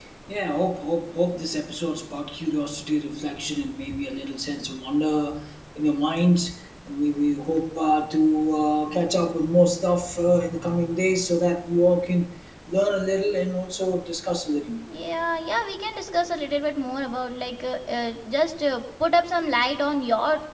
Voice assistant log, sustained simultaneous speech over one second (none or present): none